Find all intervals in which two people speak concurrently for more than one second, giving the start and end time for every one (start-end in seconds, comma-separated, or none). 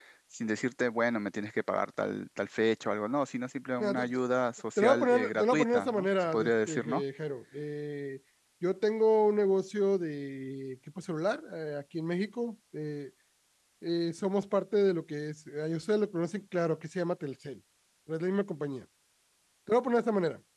4.8-7.0